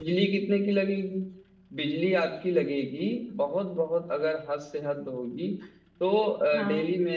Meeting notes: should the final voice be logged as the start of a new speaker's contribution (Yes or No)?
No